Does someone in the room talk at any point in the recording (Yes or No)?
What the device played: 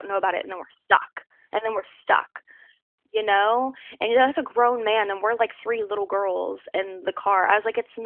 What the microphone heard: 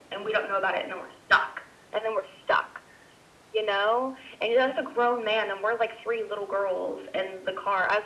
No